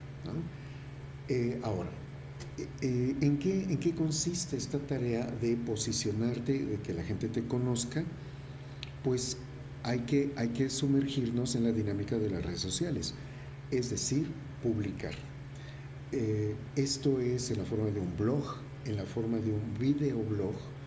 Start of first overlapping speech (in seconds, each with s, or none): none